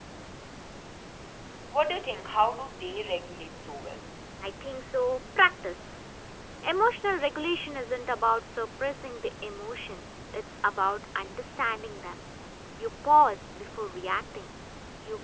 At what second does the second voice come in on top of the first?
none

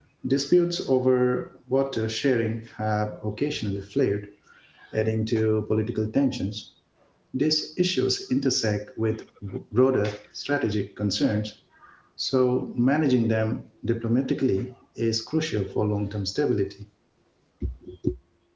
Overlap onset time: none

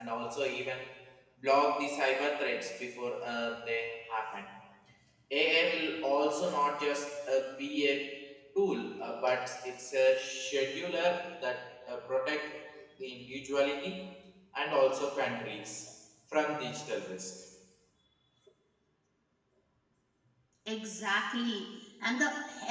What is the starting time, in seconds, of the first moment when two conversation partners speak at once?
none

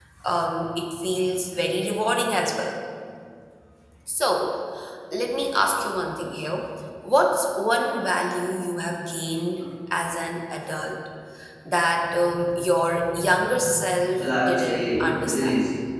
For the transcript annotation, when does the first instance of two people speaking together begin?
14 s

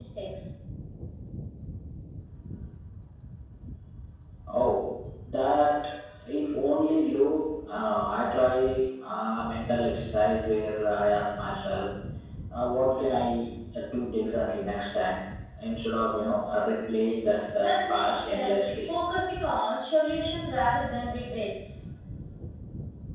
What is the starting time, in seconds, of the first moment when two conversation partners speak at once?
18 s

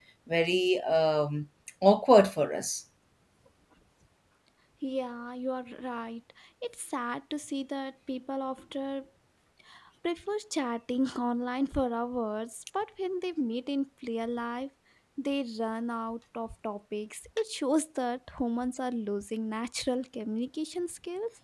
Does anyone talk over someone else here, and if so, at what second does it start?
none

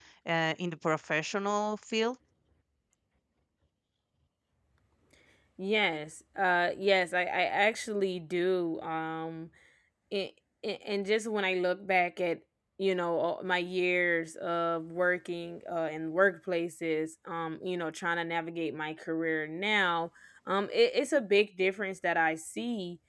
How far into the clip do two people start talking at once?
none

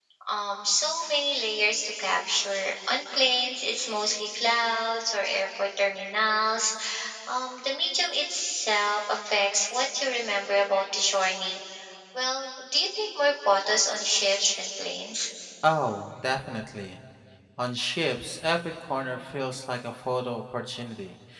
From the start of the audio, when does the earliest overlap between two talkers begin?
none

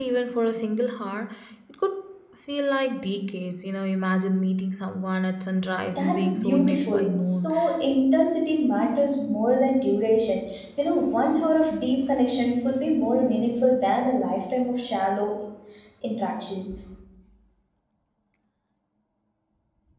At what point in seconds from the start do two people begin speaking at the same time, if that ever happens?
6 s

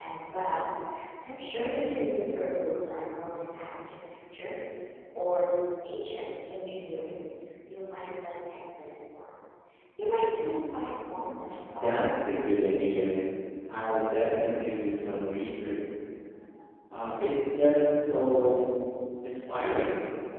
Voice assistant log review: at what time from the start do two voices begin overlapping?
12 s

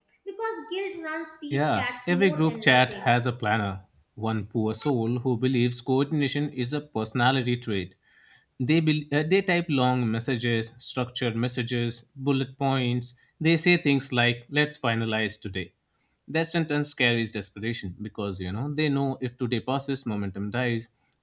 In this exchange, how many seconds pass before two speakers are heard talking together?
2 s

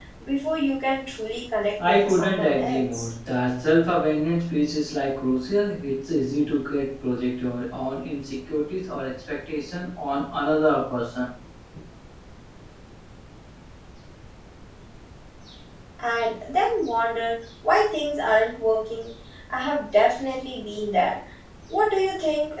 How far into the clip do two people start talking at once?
2 s

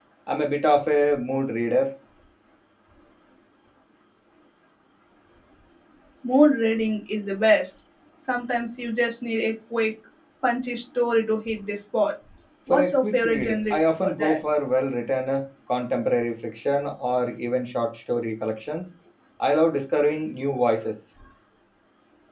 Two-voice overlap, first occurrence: 13 s

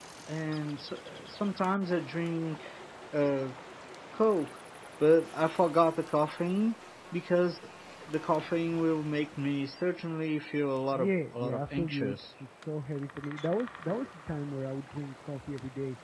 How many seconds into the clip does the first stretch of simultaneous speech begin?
11 s

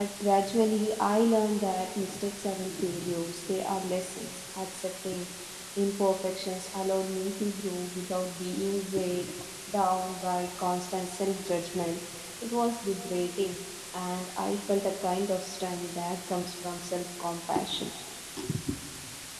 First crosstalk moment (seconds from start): none

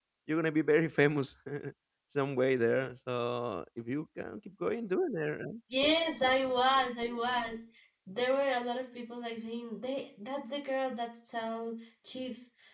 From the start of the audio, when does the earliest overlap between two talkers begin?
none

